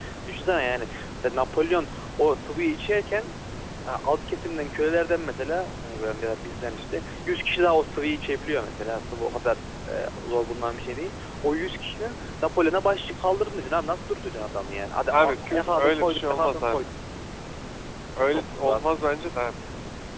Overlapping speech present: Yes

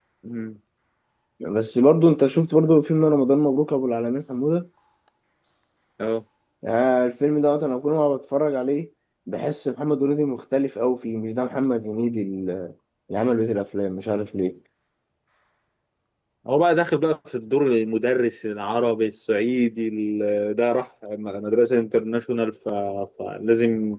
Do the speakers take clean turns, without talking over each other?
Yes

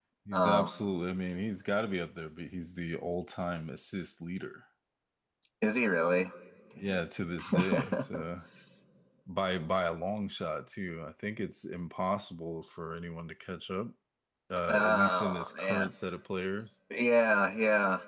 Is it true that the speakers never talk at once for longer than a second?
No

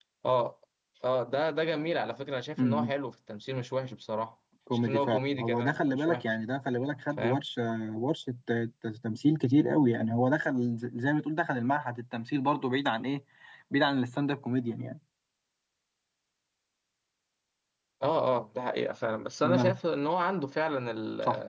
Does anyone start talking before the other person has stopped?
Yes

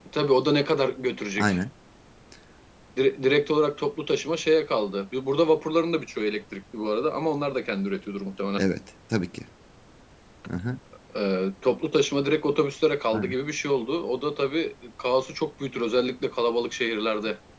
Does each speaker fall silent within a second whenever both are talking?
Yes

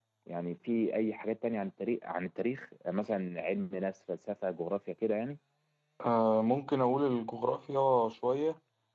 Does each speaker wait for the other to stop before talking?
Yes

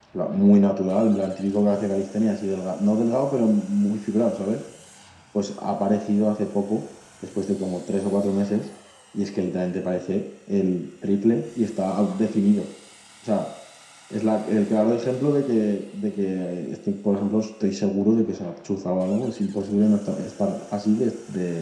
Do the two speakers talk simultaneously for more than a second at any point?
No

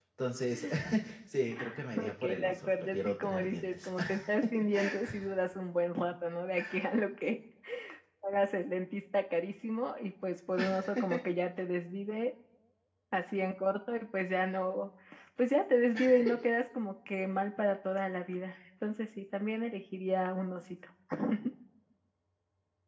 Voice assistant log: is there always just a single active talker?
No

